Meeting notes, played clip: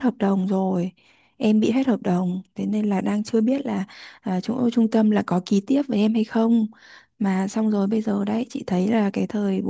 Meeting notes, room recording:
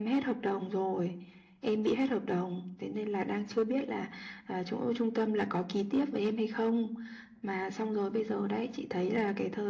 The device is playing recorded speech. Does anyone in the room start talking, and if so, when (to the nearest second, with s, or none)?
none